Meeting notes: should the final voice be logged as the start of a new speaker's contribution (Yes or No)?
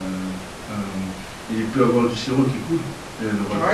Yes